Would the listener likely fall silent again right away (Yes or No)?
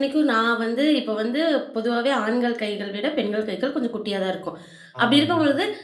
Yes